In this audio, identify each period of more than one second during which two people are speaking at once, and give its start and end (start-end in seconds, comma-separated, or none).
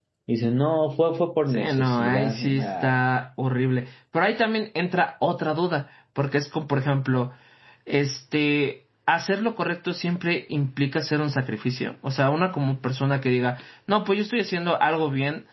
1.5-3.0